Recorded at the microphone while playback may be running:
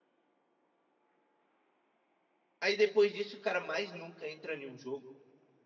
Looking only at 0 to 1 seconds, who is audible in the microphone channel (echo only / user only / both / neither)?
neither